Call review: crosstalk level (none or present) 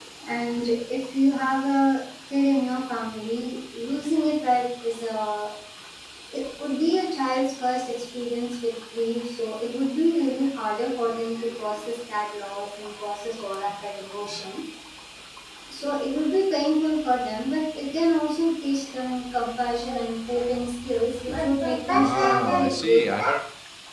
present